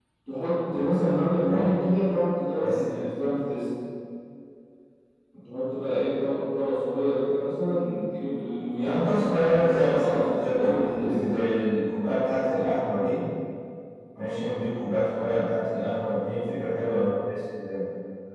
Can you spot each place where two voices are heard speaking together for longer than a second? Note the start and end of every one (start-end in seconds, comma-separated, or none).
8.8-11.4